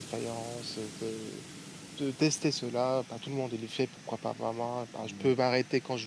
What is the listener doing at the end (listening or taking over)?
listening